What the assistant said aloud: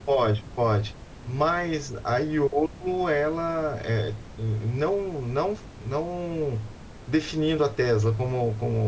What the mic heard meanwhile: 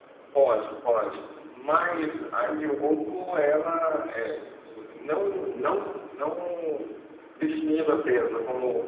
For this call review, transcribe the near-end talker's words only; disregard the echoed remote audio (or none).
none